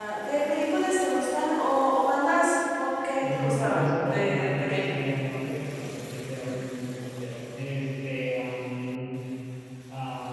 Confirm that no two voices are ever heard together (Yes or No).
No